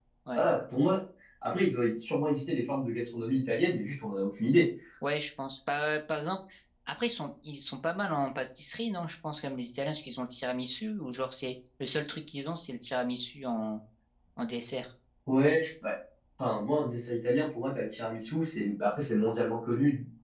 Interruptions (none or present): none